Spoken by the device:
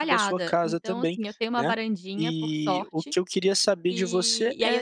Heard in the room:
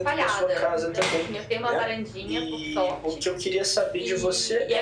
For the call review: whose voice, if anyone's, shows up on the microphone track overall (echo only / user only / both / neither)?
echo only